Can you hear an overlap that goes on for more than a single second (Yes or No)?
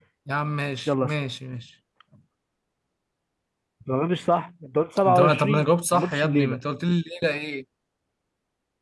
Yes